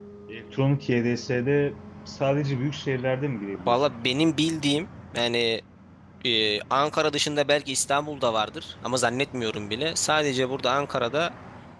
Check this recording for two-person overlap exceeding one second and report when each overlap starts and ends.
none

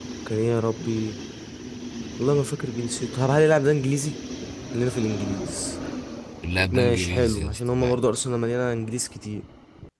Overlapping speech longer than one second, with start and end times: 6.6-8.0

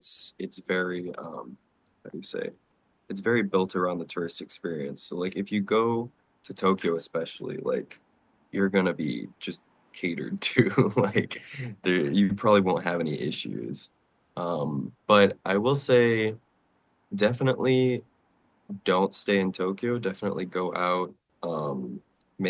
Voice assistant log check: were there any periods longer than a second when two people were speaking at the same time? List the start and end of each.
none

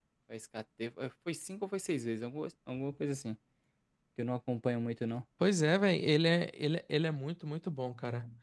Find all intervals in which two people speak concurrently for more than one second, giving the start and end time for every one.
none

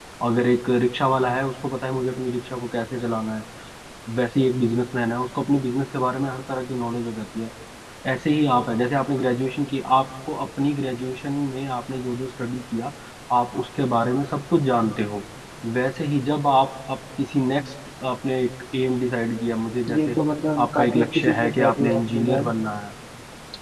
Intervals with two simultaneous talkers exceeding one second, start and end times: 20.7-22.4

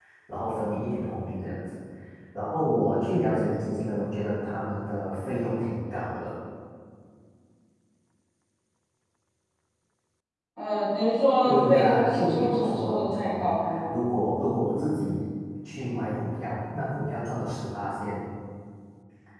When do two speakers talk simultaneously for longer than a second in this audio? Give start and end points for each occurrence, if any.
11.4-13.8

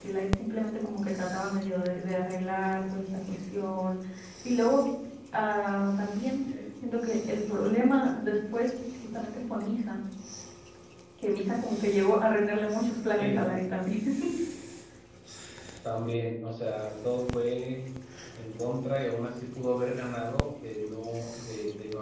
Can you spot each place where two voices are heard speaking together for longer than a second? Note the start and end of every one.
none

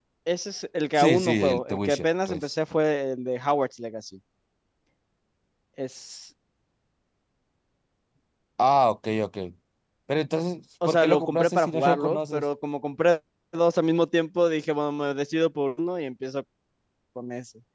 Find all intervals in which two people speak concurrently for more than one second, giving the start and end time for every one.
0.9-2.5, 10.8-12.4

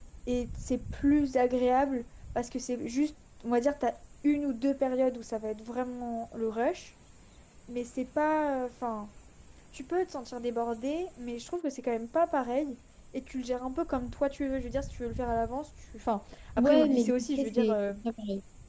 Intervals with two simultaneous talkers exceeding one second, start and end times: 16.6-17.8

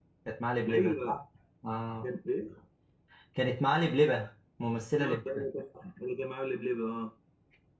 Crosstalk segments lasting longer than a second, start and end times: none

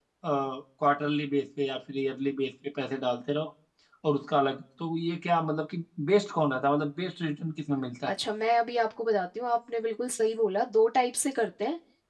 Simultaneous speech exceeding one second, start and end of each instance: none

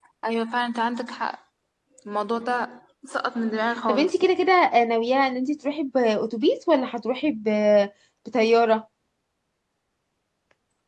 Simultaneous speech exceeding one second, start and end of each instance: none

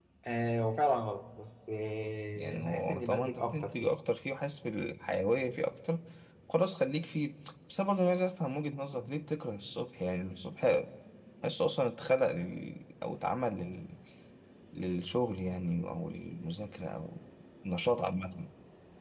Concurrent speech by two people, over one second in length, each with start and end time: 2.4-3.9

